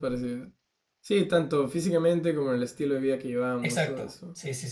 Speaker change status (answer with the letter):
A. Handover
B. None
A